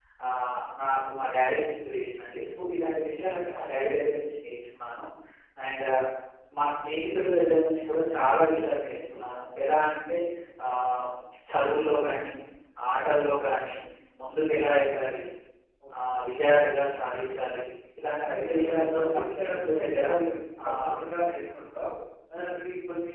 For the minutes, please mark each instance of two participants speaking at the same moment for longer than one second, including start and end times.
18.3-20.0

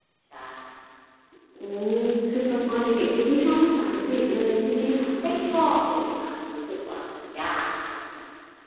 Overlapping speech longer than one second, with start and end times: none

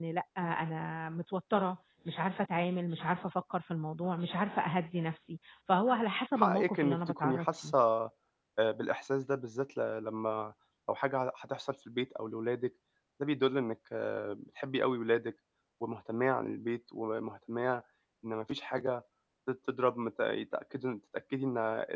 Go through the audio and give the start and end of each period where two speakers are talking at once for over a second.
6.4-7.7

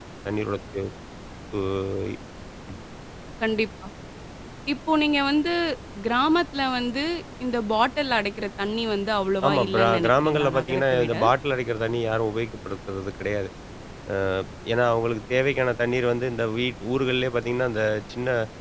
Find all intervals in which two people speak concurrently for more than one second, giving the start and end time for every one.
9.5-11.1

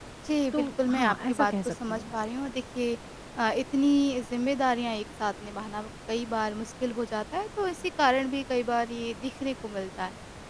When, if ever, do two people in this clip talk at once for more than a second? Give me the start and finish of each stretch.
0.5-2.1

